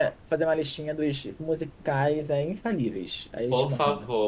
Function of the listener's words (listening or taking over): taking over